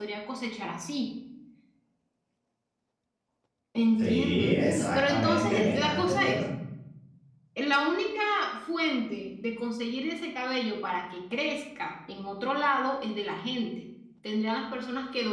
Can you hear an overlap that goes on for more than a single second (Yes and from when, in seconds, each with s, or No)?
Yes, from 4.0 s